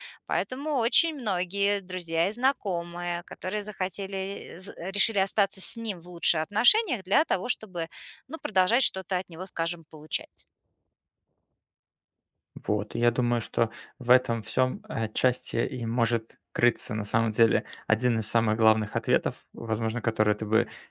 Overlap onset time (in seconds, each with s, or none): none